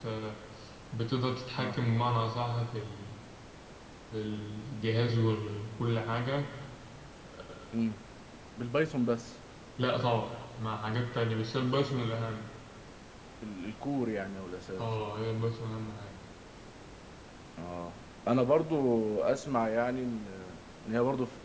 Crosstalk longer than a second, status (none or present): none